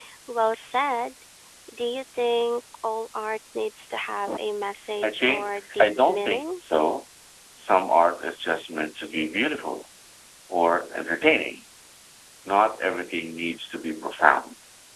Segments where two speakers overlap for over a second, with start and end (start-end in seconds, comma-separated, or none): 5.0-6.5